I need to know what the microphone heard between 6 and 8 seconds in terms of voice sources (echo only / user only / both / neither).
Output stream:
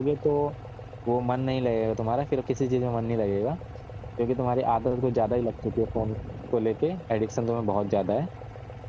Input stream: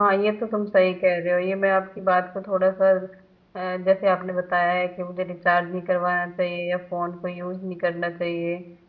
user only